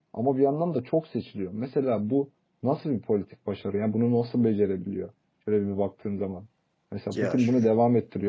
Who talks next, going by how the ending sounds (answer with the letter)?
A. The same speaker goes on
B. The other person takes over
A